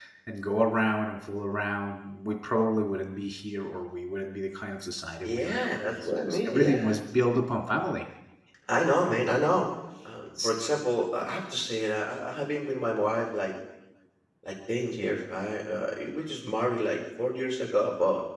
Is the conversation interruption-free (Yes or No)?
No